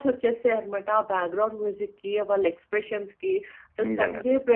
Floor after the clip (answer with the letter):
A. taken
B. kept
B